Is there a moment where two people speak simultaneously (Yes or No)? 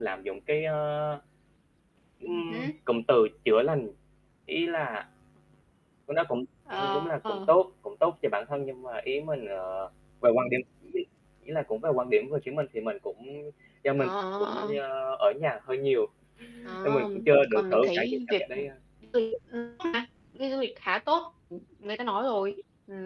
Yes